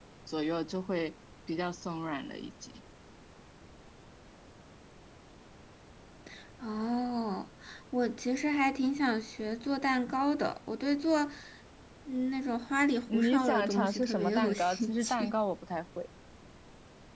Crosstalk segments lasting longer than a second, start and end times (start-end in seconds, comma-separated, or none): 13.1-15.4